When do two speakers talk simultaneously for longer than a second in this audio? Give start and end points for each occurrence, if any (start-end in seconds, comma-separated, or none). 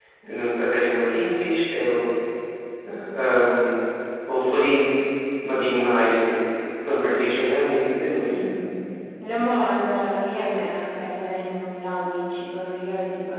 none